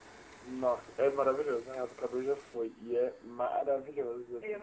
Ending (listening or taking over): listening